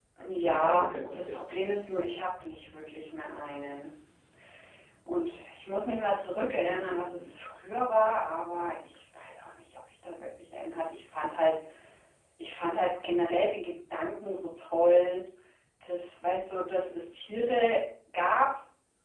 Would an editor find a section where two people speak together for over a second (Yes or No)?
Yes